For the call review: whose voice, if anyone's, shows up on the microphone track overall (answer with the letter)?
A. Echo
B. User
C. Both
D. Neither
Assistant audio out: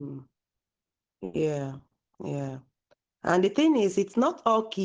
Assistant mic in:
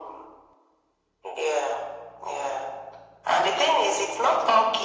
A